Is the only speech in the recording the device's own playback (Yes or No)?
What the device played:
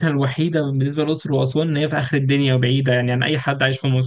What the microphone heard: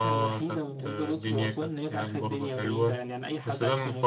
No